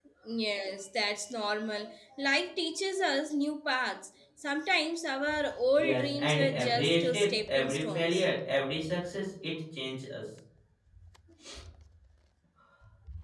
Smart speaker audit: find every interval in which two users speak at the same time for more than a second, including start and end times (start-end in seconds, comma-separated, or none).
5.8-8.2